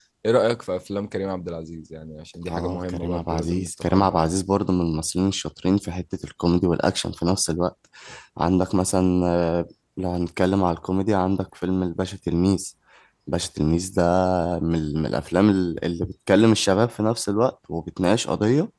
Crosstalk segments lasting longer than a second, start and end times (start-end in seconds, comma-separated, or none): 2.5-4.2